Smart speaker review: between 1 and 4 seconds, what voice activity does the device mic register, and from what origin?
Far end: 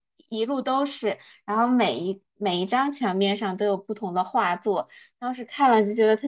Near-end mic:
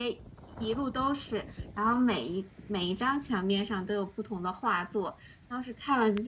echo only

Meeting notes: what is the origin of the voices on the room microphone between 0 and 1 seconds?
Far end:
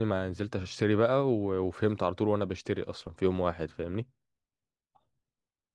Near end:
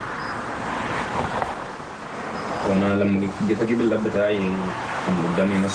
neither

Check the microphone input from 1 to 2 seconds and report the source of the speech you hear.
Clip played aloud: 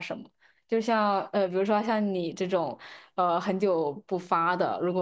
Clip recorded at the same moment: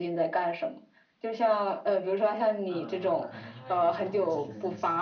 echo only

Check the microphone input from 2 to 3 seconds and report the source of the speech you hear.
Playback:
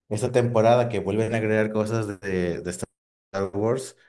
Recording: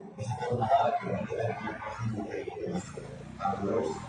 echo only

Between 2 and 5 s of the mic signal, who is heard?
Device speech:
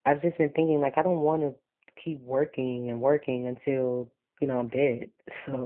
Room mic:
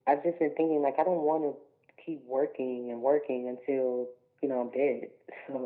echo only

